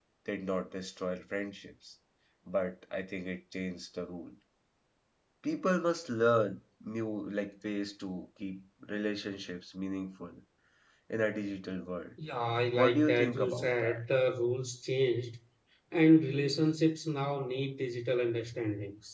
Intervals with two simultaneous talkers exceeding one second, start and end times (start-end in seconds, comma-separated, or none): 12.7-14.0